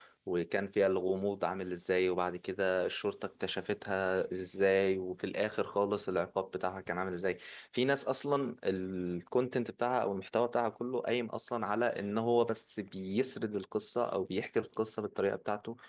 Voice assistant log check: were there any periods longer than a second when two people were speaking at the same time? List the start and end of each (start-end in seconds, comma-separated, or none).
none